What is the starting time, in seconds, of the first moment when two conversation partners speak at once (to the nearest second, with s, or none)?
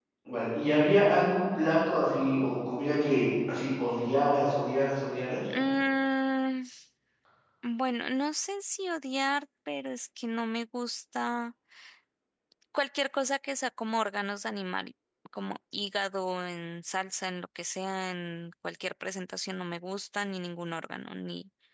none